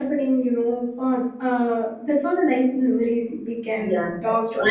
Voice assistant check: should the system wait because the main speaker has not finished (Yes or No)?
No